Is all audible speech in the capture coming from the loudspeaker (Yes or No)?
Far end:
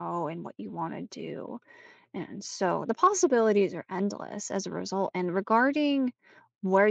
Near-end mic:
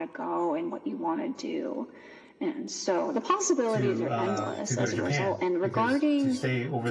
No